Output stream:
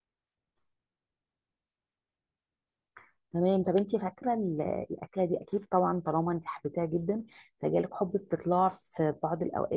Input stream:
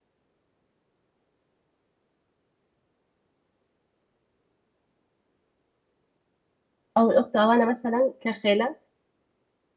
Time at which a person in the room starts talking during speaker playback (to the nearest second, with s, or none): 7 s